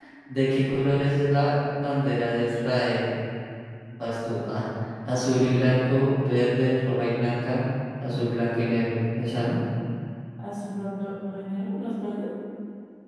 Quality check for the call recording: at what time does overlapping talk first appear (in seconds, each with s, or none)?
none